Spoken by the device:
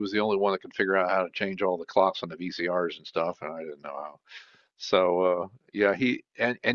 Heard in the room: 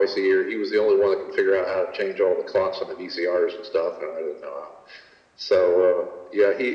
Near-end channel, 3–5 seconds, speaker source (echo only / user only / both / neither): echo only